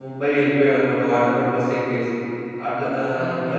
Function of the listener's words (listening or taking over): listening